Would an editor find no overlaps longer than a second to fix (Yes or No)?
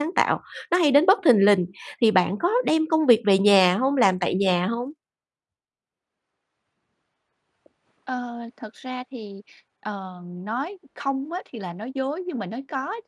Yes